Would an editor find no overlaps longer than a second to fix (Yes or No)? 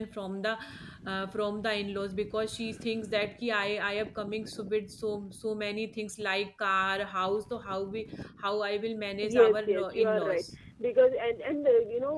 No